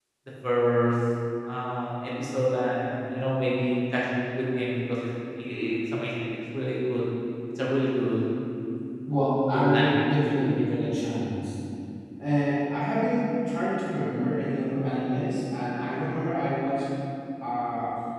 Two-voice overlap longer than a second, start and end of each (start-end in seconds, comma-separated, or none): none